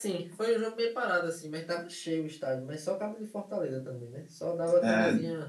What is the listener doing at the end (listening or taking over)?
listening